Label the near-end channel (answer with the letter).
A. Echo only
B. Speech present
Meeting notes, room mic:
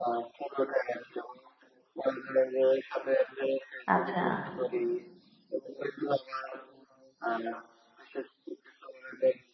B